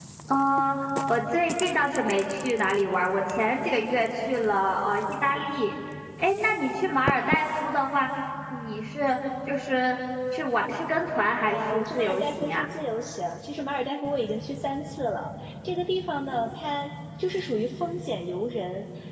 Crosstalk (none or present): present